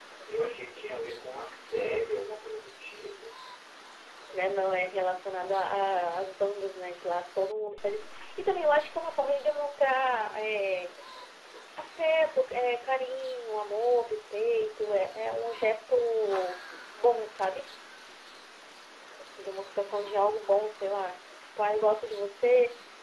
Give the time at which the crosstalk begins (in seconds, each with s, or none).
none